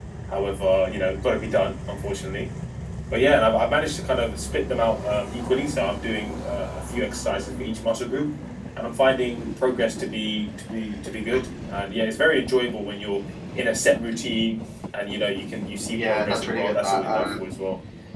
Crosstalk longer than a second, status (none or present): present